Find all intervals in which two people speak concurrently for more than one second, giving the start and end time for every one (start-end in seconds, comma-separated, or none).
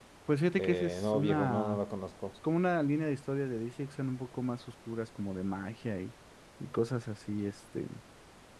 0.6-1.8